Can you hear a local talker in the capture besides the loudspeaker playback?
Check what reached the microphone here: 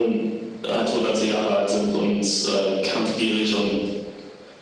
No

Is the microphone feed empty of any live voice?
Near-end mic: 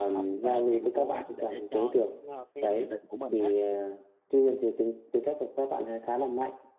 No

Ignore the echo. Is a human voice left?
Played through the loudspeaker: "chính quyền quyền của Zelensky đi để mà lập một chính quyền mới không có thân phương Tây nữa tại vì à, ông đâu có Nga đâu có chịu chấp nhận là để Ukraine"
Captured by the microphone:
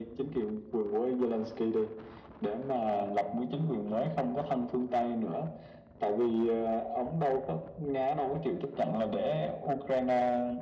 No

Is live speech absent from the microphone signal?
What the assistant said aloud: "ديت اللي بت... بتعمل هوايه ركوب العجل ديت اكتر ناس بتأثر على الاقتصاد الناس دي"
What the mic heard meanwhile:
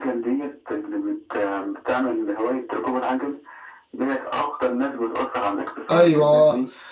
No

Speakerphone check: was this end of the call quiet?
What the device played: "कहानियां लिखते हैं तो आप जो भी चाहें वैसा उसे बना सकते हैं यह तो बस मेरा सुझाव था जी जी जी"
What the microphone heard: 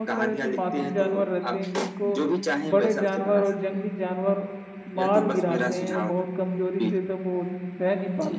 No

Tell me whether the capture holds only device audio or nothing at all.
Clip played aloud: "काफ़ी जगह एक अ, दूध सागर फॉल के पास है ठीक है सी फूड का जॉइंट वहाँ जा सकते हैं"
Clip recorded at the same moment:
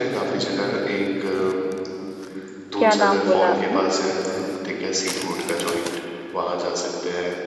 No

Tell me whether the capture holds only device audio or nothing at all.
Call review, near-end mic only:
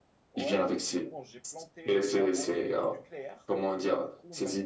No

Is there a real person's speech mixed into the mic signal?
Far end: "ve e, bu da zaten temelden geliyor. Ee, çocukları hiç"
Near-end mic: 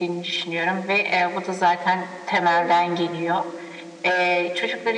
Yes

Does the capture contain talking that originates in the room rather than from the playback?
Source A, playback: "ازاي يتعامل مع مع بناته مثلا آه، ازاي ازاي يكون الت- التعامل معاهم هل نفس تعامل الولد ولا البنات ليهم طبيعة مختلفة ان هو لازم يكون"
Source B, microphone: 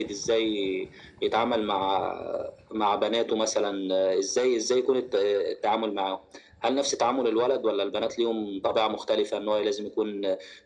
No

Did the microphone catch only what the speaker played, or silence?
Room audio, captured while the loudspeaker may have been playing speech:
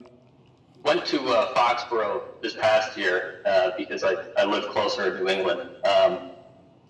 Yes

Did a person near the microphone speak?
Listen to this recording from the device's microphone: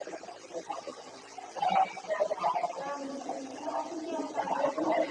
Yes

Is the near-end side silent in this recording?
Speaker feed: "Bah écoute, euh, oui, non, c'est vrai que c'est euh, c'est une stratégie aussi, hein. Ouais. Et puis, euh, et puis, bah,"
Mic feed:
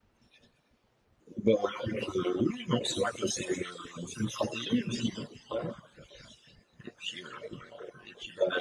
Yes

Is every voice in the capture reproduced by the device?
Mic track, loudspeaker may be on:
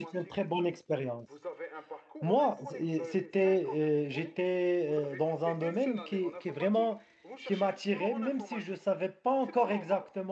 No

